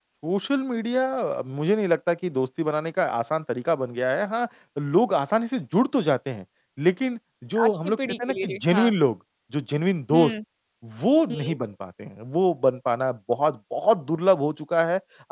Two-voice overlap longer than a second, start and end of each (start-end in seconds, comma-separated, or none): 7.6-8.9